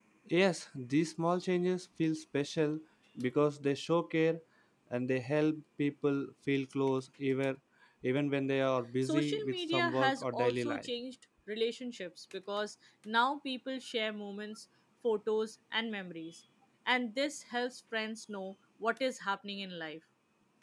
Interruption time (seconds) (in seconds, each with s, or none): 9.0 s